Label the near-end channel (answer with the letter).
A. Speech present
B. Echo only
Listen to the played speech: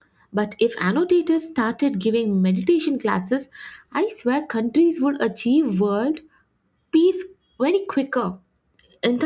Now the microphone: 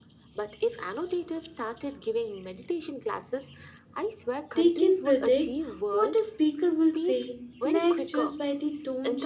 A